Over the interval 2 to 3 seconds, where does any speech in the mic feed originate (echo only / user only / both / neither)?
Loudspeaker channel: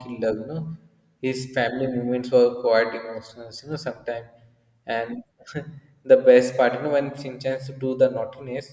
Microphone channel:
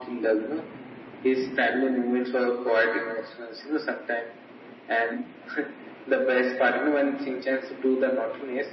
echo only